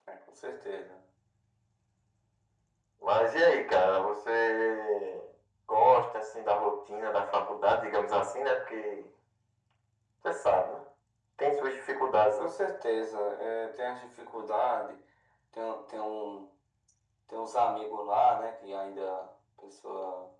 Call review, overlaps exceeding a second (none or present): none